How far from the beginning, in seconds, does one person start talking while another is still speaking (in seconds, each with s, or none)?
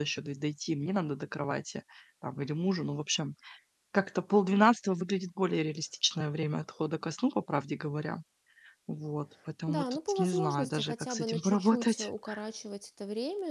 9.7 s